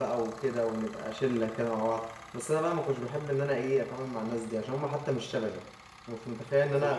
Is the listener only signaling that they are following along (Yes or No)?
Yes